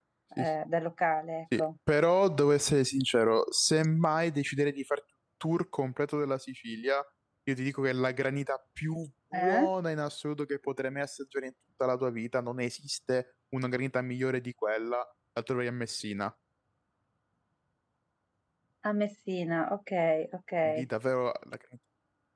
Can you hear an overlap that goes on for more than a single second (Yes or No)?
No